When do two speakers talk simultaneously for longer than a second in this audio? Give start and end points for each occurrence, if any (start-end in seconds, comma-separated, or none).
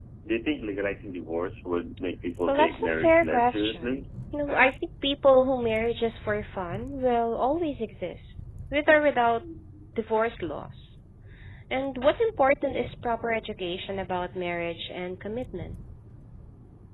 2.5-4.0